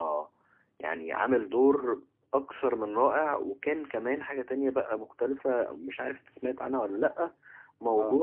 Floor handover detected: No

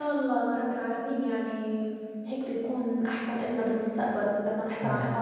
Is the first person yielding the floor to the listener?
No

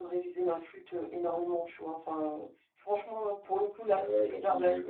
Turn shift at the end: Yes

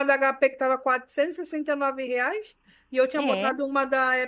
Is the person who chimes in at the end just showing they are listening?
Yes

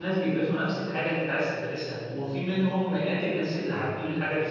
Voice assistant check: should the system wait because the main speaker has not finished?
Yes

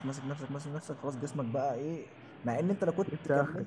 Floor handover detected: No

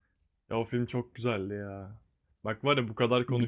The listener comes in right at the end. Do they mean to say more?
No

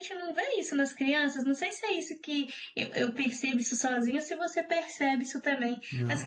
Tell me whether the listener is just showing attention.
Yes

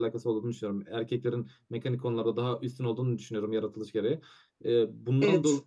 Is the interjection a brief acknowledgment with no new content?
Yes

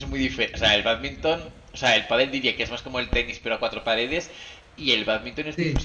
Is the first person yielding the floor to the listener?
No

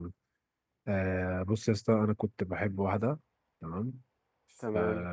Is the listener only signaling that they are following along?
Yes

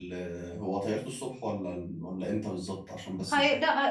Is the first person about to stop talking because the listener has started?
Yes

